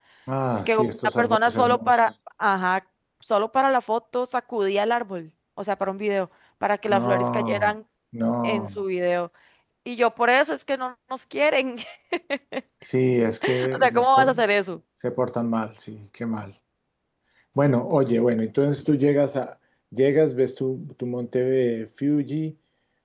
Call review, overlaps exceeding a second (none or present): present